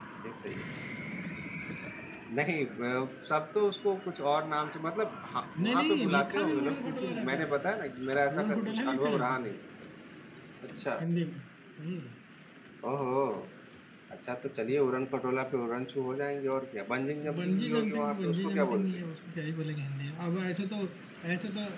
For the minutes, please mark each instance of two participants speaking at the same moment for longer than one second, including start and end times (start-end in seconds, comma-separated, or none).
5.6-7.5, 8.3-9.5, 17.4-18.9